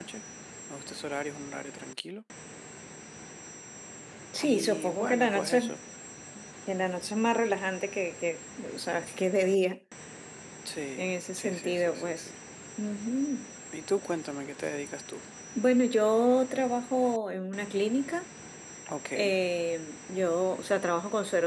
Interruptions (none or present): present